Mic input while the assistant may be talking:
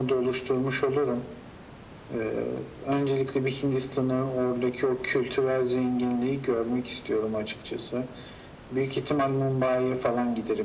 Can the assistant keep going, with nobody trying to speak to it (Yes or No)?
Yes